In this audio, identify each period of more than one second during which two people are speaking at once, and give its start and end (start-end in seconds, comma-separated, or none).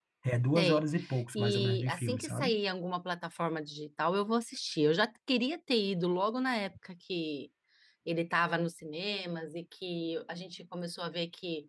1.4-2.6